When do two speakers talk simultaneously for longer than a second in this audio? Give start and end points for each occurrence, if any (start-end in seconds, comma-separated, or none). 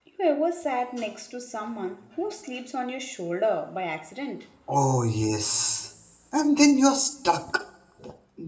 none